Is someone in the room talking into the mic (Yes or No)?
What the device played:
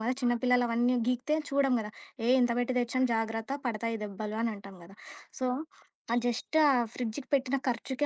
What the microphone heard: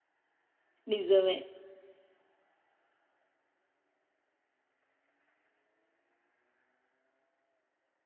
Yes